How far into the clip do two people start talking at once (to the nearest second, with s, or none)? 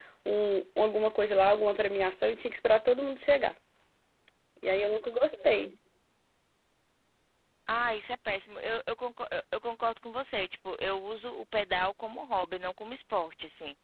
none